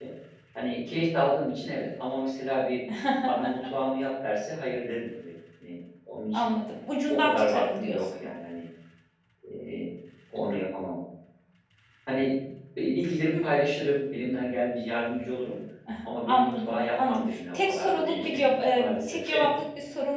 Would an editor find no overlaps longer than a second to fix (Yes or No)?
No